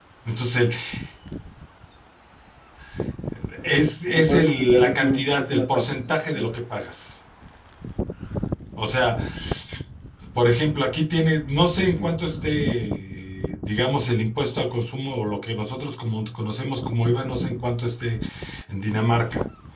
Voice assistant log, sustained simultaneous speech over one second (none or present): present